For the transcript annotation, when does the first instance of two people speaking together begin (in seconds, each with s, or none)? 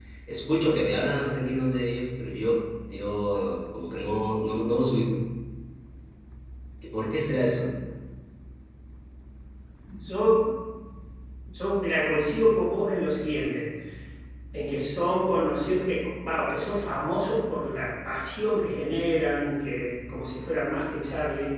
none